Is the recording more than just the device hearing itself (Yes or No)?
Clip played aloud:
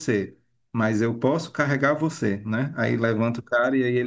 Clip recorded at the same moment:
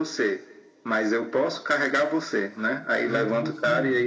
Yes